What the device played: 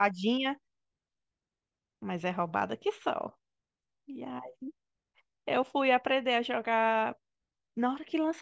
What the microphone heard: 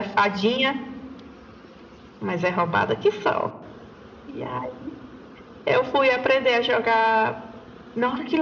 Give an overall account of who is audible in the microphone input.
echo only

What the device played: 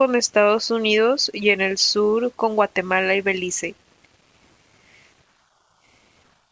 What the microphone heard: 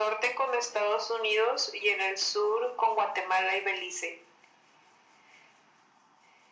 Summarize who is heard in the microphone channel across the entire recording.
echo only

